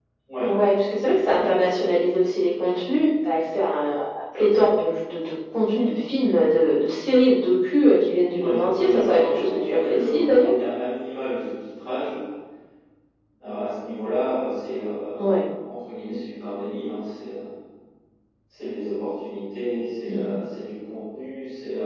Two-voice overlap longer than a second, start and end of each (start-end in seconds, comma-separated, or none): 8.3-10.5